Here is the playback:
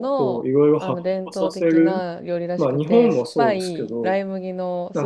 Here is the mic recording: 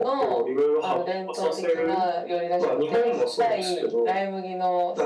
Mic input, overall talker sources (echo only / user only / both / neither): echo only